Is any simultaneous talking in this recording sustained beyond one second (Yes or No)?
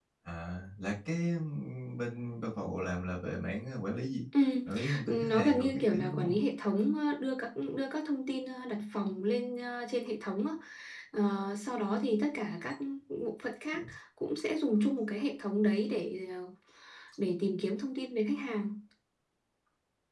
Yes